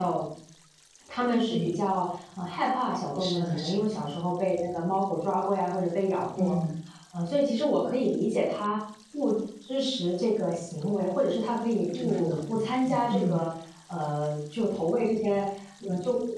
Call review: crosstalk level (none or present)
present